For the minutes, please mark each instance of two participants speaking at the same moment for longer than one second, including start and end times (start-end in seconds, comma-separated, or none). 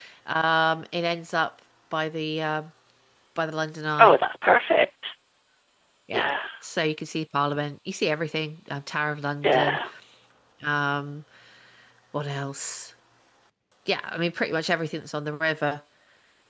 none